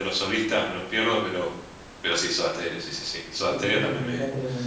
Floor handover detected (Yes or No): Yes